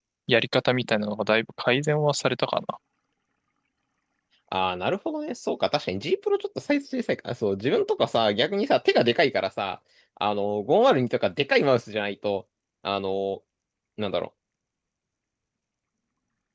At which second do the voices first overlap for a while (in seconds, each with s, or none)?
none